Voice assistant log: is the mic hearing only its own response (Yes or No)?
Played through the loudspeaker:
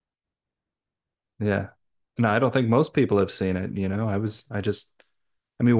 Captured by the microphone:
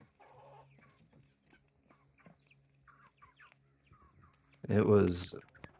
No